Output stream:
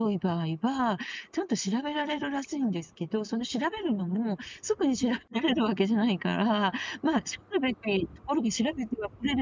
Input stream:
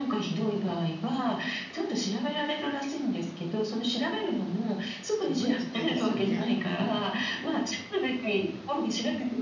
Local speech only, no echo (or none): すごい時代ですよね、うん。